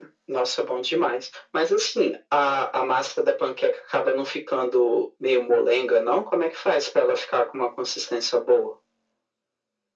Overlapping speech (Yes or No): No